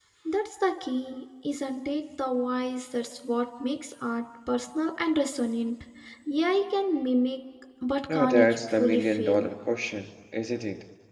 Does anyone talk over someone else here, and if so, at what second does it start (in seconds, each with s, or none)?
8.1 s